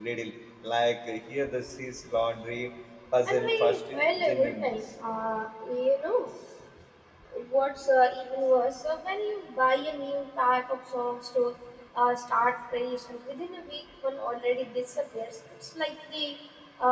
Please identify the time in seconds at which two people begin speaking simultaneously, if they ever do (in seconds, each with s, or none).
3.3 s